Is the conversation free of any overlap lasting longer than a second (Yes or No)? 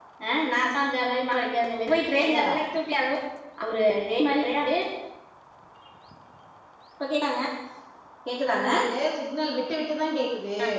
Yes